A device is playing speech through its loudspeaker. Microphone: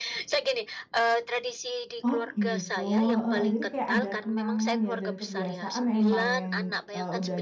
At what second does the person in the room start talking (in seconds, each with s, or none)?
2.1 s